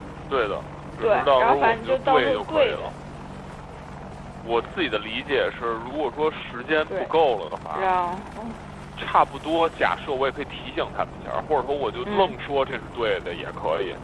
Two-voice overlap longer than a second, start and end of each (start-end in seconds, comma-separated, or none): 1.0-2.9